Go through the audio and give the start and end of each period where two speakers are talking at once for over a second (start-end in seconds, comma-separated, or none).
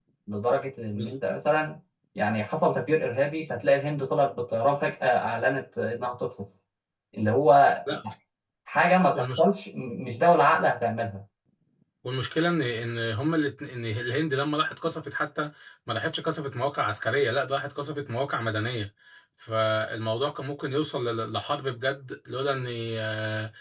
none